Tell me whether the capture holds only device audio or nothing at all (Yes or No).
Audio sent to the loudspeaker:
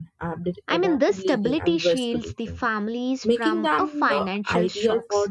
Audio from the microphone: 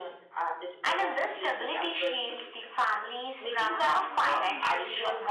No